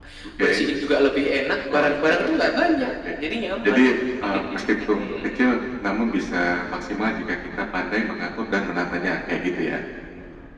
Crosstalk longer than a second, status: present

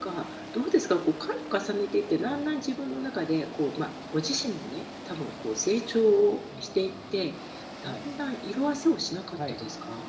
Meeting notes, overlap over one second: none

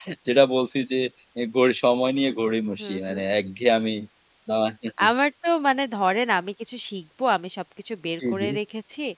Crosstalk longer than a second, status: none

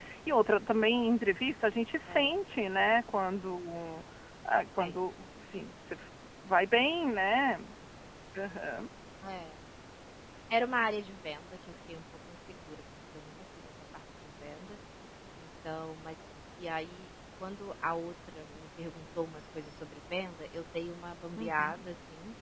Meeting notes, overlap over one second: none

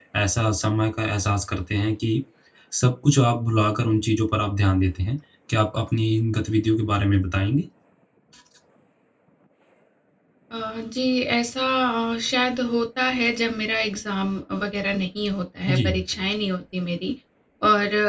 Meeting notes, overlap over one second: none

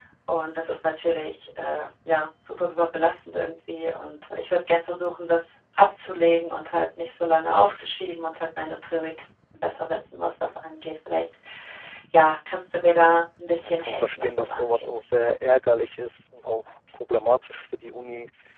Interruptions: present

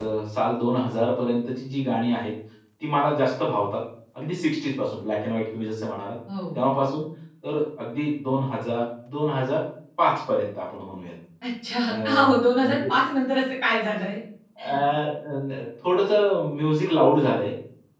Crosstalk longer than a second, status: none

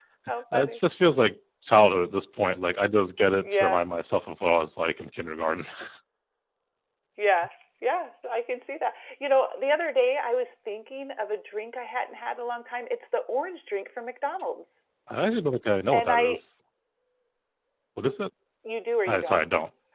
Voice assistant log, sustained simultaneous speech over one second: none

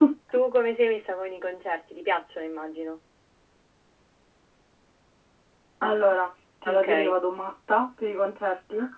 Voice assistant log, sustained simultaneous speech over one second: none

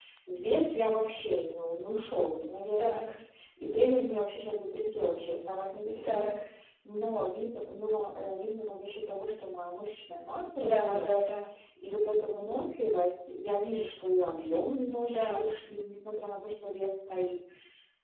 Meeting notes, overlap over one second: none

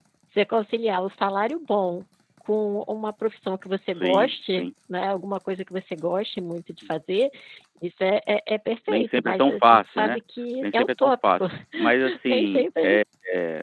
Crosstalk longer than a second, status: present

